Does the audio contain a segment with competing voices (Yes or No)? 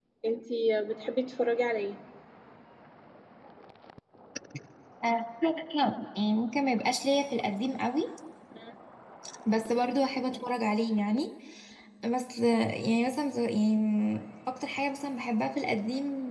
No